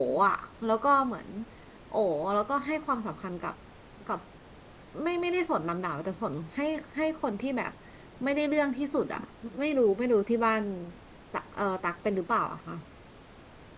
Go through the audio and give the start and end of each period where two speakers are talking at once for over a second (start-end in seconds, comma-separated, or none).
none